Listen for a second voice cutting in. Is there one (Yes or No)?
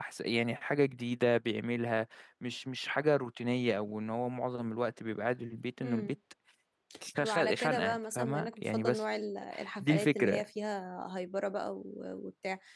Yes